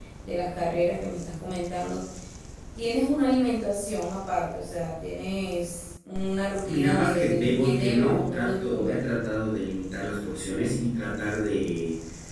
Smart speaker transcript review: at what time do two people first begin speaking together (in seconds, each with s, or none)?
6.7 s